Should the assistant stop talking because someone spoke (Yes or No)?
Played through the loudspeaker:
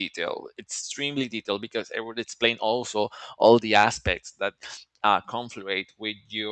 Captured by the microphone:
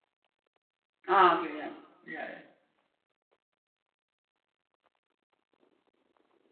Yes